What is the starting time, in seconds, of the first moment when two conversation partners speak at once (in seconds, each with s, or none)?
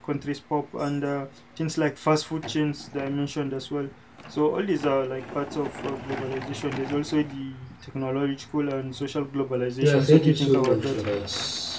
9.8 s